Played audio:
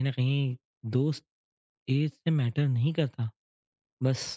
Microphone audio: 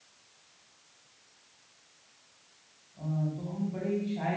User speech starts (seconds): 3.0 s

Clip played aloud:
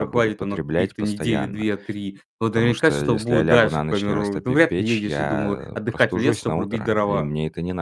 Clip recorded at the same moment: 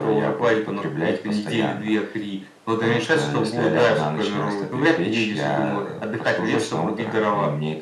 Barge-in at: none

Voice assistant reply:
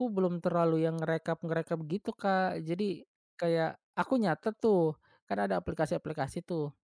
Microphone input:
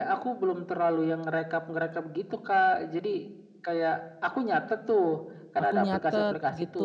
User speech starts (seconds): 5.6 s

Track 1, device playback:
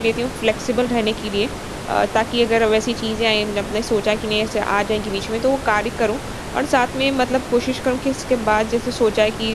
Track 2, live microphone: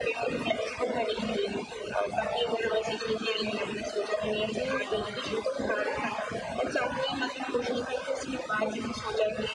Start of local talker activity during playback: 4.5 s

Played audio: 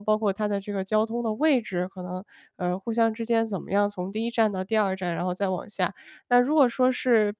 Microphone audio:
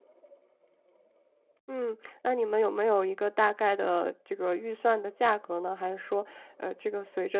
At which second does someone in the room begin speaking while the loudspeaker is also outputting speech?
1.7 s

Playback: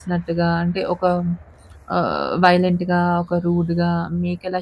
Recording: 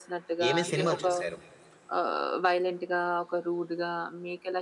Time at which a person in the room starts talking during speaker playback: 0.5 s

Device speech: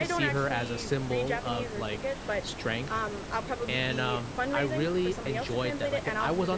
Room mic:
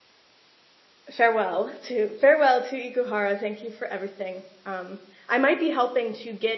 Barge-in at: 1.1 s

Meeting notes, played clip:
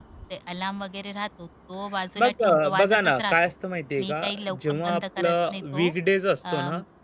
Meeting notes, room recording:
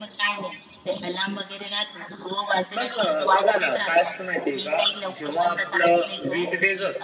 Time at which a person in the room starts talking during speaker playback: none

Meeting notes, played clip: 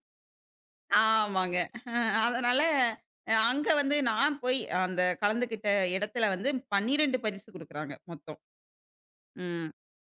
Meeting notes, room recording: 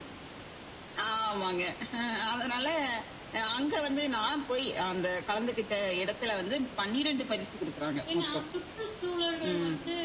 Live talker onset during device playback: 8.1 s

